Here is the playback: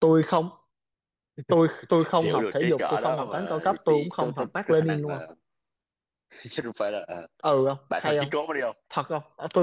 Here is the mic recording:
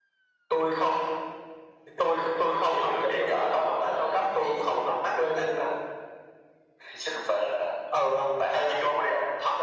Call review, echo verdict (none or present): present